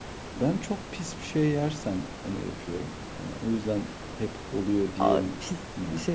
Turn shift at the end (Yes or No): Yes